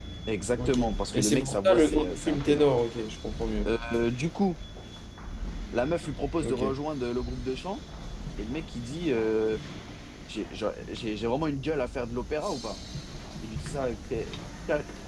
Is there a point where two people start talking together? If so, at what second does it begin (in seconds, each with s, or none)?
0.6 s